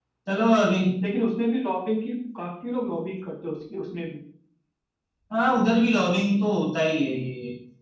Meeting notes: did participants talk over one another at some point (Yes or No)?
No